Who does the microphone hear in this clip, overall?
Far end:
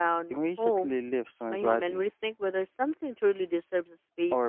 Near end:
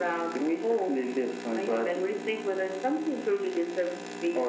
echo only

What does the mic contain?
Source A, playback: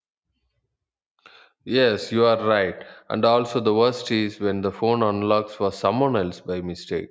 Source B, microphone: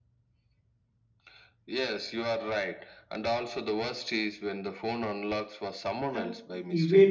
both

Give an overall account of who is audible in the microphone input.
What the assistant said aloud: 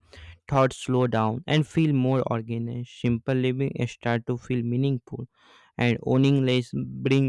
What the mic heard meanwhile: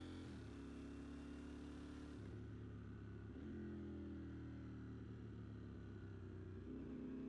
neither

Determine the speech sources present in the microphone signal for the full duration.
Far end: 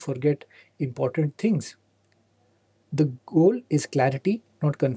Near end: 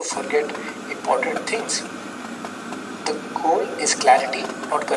echo only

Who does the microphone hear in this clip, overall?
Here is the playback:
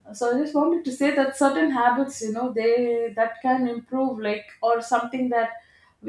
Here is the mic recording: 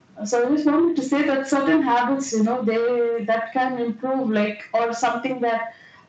echo only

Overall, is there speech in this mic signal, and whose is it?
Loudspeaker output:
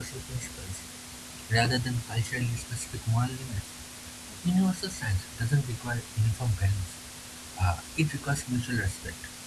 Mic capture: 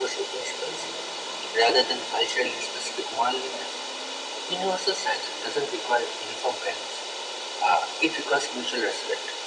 echo only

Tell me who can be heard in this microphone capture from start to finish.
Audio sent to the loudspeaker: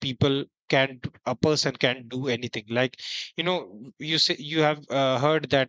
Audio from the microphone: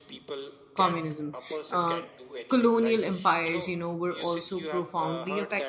both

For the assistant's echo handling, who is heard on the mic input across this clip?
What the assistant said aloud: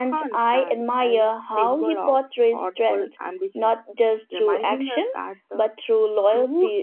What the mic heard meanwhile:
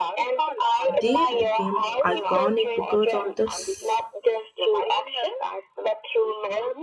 both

